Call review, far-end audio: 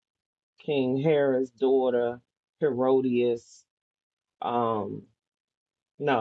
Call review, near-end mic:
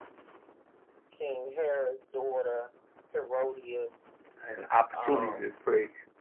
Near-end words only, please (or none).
an opportunity to pray